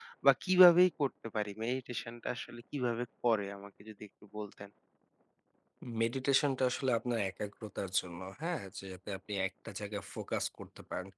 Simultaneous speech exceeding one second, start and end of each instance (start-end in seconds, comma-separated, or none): none